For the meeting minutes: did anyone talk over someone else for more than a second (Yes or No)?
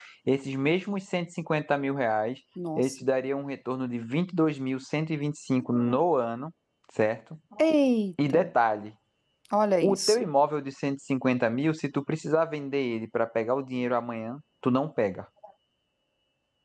No